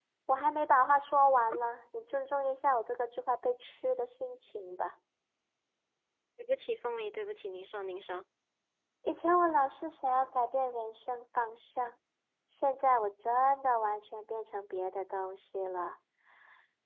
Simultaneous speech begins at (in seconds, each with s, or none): none